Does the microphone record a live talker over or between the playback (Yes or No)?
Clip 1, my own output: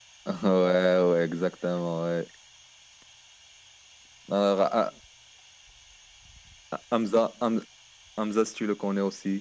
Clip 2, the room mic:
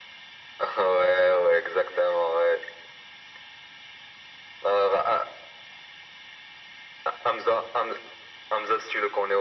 No